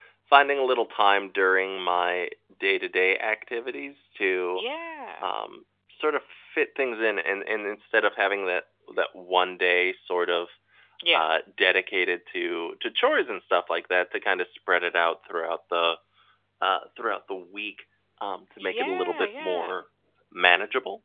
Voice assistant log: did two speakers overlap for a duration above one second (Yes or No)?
Yes